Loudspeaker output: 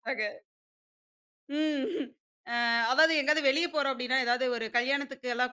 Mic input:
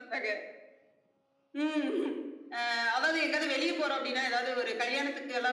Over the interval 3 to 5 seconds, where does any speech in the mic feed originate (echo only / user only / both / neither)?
echo only